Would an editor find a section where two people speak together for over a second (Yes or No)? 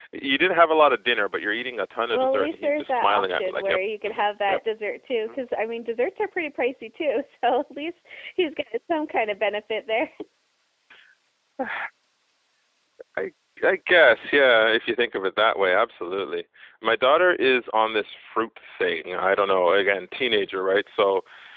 Yes